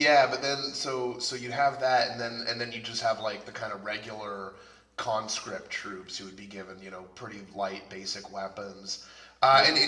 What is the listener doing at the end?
listening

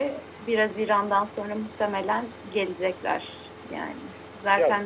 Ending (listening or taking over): listening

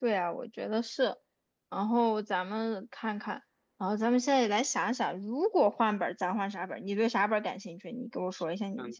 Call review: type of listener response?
taking over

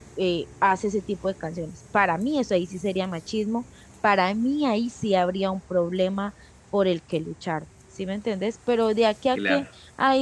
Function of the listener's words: listening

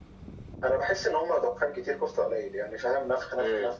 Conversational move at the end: listening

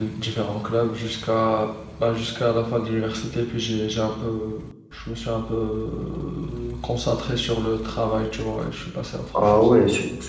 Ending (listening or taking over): taking over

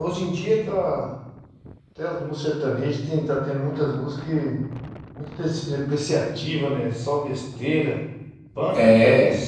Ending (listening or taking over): listening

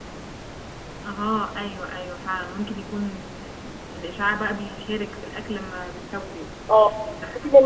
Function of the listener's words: taking over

